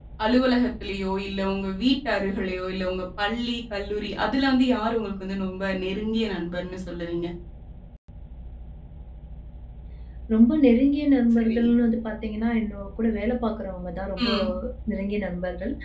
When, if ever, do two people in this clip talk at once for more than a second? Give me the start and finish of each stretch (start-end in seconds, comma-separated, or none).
none